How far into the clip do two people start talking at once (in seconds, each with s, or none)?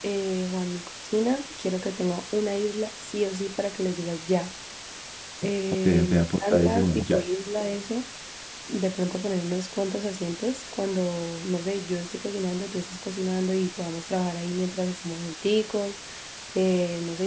5.8 s